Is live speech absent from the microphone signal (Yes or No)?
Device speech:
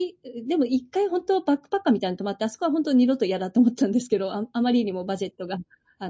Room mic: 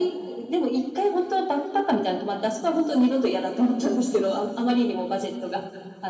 Yes